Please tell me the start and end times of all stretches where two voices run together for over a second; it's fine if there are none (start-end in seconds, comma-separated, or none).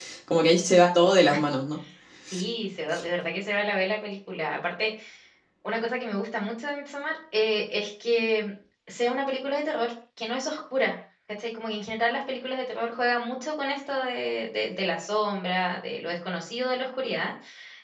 none